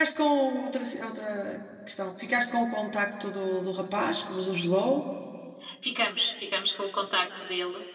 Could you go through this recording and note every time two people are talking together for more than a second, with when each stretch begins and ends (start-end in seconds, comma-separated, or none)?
none